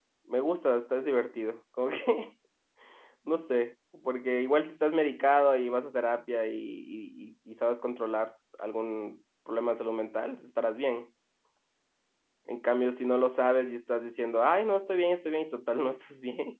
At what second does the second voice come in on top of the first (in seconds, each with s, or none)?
none